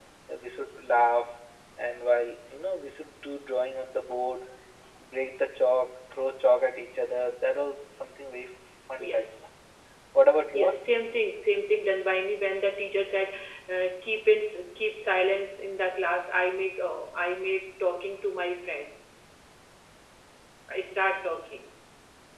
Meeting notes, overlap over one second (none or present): none